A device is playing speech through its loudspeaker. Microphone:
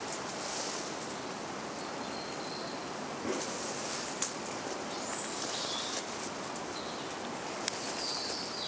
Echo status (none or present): none